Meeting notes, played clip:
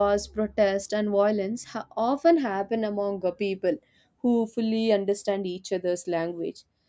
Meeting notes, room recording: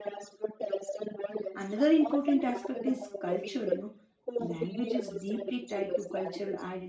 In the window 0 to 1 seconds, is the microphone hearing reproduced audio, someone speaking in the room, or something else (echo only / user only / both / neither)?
echo only